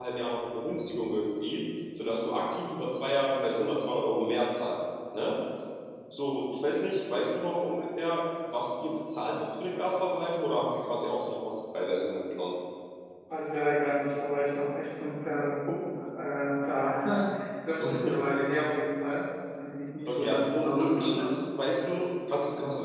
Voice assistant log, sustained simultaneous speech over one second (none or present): present